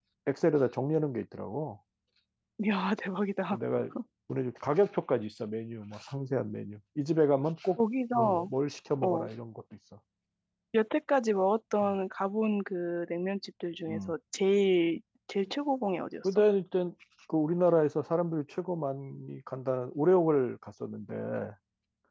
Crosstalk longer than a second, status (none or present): none